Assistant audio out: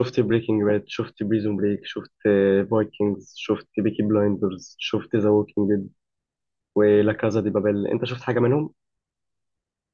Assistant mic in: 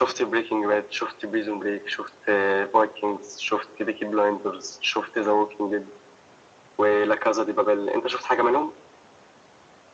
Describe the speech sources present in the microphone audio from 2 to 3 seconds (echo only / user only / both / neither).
echo only